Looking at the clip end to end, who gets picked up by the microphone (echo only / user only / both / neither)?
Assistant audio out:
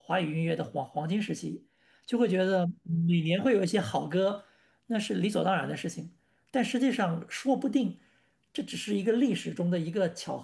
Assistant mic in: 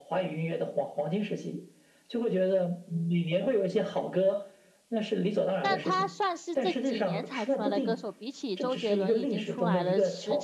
both